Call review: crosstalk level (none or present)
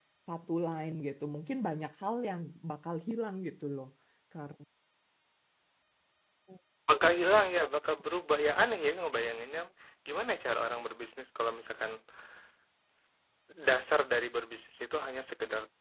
none